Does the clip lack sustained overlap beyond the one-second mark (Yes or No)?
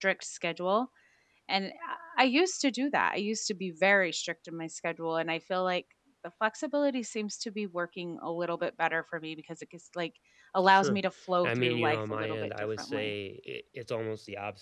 No